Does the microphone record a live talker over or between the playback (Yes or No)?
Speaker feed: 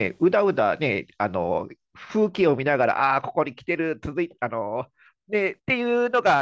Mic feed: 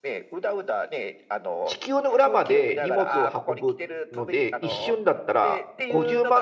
Yes